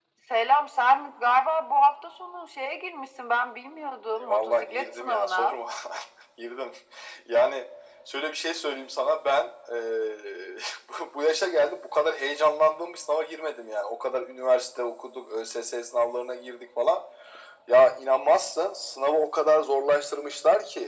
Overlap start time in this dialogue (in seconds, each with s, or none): 4.2 s